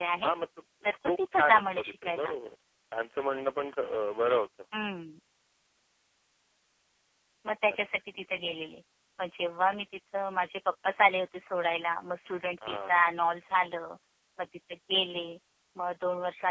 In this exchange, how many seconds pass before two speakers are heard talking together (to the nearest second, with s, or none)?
1 s